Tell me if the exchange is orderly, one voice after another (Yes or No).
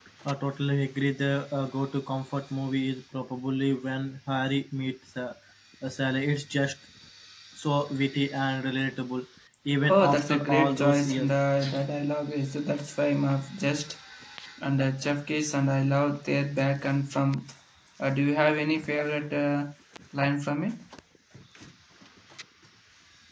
No